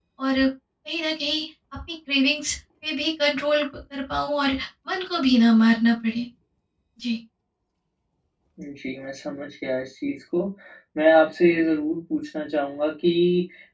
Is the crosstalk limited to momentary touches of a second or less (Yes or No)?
Yes